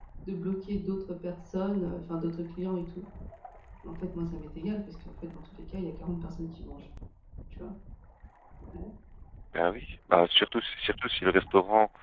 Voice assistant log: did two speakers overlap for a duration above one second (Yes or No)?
No